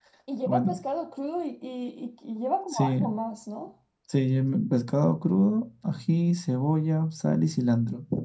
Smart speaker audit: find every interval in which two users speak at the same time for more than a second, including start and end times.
none

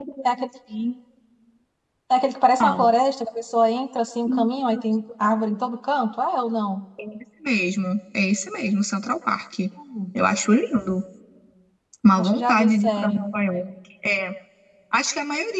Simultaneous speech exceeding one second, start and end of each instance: 12.2-13.7

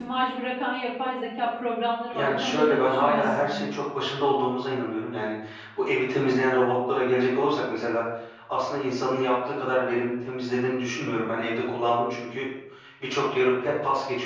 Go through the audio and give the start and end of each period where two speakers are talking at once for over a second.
2.1-3.5

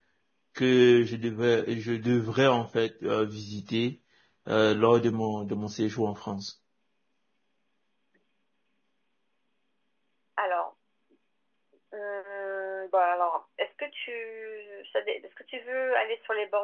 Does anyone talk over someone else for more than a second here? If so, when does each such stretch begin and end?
none

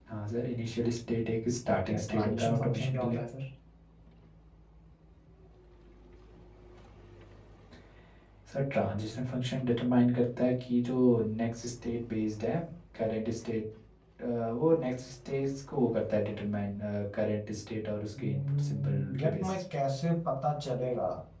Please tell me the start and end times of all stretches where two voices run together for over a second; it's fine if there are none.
1.7-3.2, 18.2-19.6

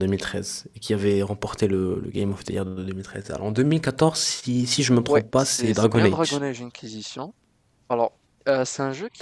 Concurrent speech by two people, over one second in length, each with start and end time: 4.9-6.4

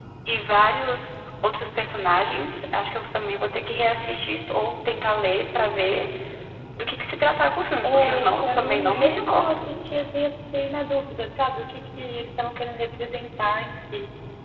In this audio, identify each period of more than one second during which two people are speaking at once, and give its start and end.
7.8-9.7

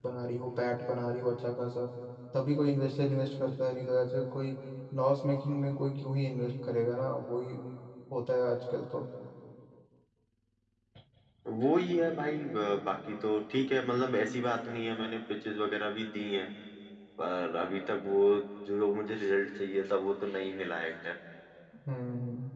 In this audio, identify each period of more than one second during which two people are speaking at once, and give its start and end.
none

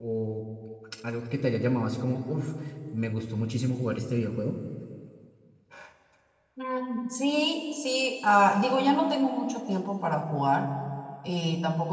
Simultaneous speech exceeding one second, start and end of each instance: none

